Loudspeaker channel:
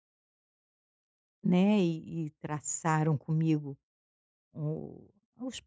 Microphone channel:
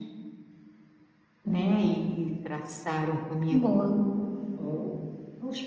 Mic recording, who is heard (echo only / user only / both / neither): both